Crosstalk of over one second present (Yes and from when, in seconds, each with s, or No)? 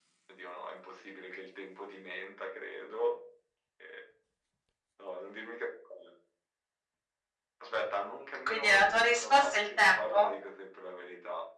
Yes, from 8.5 s